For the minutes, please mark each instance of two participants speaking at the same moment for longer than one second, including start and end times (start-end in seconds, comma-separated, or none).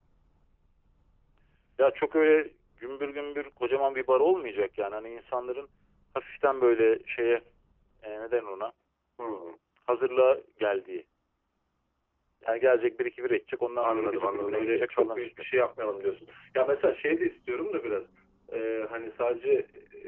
13.8-15.3